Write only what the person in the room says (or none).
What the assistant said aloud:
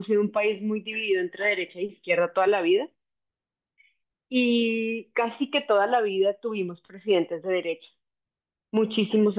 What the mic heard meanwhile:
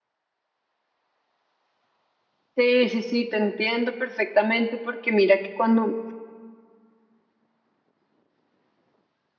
Sí, sí, sí, te entiendo perfectamente porque mira que cuando